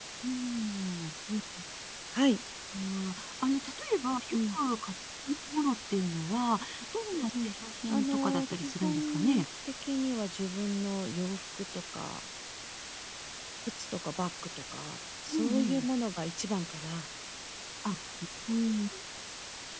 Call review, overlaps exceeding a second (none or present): present